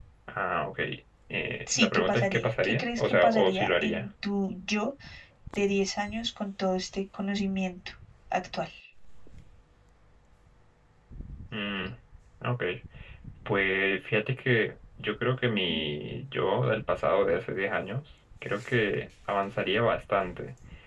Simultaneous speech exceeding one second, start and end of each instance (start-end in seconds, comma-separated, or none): 1.7-4.0